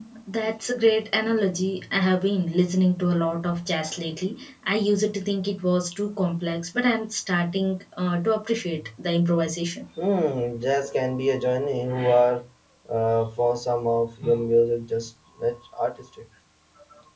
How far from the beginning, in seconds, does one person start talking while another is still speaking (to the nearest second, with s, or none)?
none